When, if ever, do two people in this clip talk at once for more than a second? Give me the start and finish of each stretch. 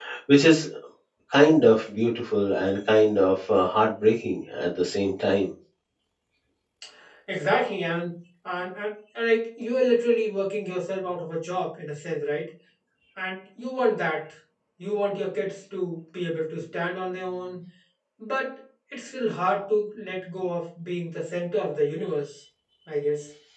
none

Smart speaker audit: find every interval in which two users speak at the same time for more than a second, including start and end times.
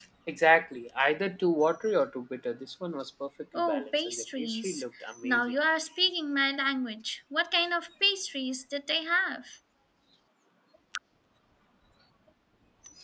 3.6-4.8

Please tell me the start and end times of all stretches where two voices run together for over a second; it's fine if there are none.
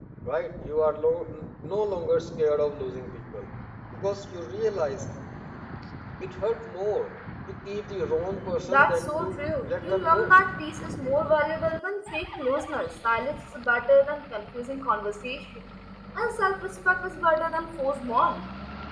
8.7-10.3

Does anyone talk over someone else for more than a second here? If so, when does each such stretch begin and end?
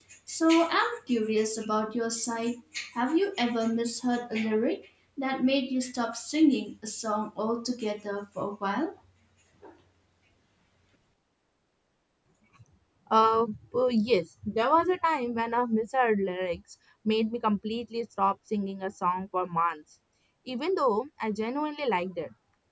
none

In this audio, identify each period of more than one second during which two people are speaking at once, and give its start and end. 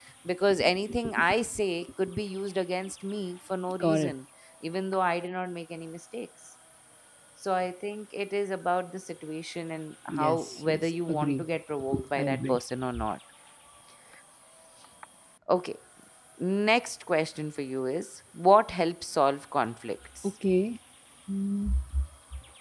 10.1-11.4

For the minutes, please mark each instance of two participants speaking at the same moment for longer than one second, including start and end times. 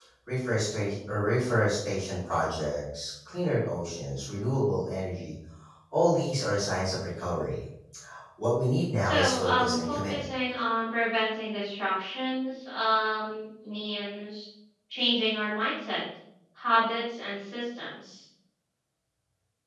9.0-10.2

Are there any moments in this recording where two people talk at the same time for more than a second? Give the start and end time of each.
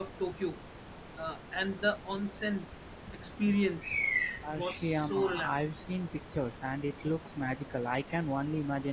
4.5-5.8

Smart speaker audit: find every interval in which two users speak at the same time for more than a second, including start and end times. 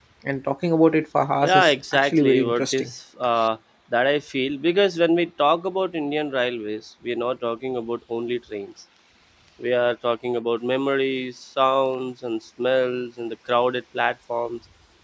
1.4-2.9

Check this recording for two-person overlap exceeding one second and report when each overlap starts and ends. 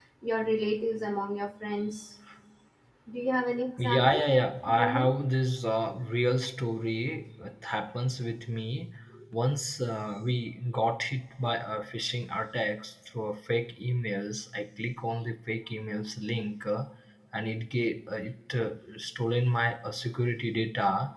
none

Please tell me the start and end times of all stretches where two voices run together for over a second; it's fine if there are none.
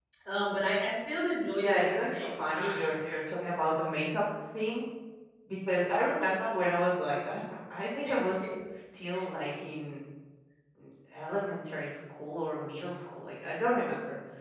1.5-2.9

